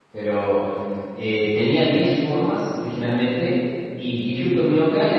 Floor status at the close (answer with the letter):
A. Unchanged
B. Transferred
A